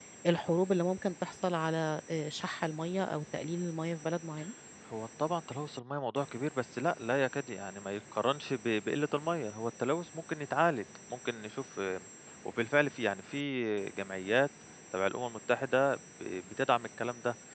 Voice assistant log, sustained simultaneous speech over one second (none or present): none